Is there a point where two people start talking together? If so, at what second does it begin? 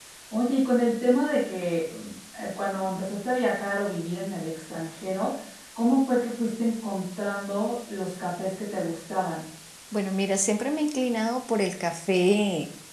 none

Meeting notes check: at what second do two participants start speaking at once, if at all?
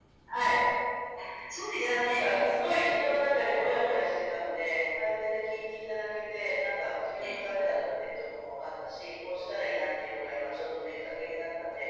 1.8 s

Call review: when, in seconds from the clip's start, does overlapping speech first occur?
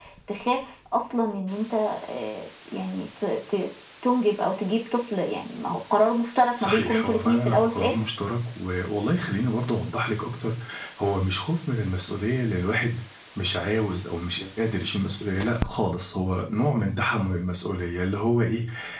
6.5 s

